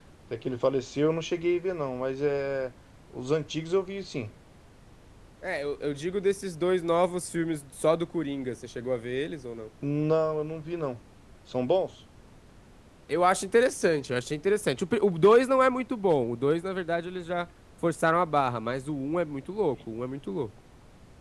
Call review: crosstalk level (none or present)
none